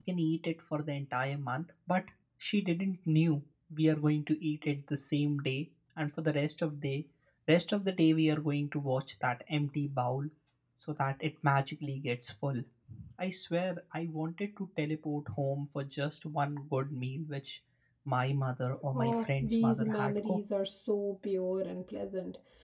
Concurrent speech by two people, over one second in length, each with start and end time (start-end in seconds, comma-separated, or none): 18.9-20.4